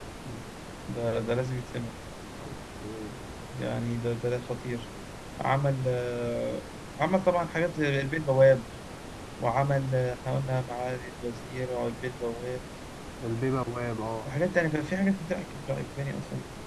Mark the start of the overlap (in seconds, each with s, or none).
none